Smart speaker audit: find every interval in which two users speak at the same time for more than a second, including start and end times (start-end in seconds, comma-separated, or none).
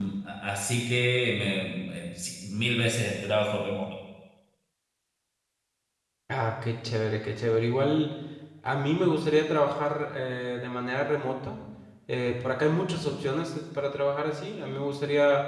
none